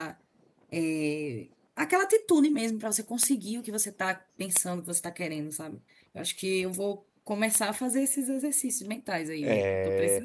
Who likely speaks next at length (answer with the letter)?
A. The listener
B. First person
A